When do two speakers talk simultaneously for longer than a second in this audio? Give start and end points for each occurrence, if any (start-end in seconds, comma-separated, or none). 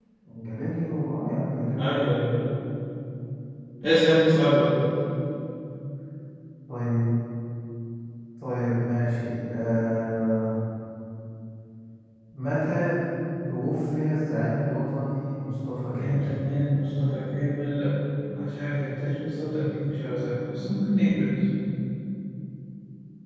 none